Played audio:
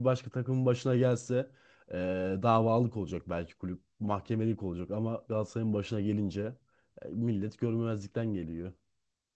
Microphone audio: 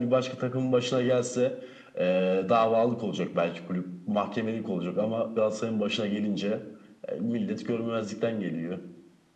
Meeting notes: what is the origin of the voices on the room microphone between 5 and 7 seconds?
echo only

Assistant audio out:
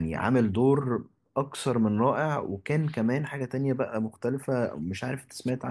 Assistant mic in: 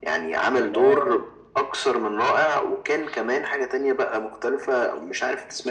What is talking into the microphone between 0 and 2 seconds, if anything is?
both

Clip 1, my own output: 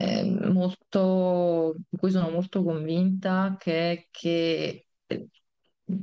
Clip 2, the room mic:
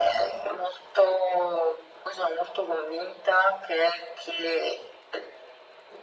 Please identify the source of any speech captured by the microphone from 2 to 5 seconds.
echo only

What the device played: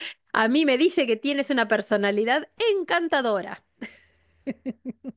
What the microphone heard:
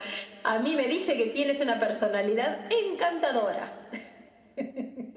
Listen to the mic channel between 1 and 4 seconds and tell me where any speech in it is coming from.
echo only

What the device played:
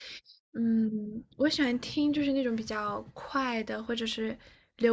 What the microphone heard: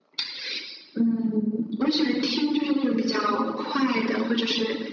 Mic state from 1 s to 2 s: echo only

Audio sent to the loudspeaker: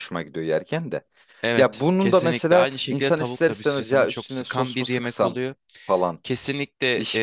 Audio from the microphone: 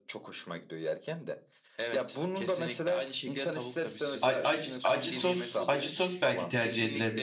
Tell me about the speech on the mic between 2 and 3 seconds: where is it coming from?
echo only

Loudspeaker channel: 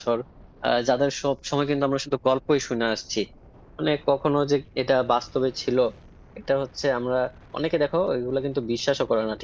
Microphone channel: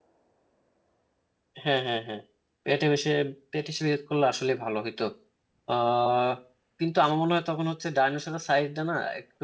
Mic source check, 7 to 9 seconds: user only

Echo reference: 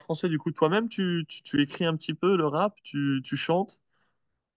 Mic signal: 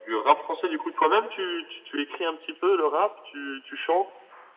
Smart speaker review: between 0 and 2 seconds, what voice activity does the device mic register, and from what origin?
echo only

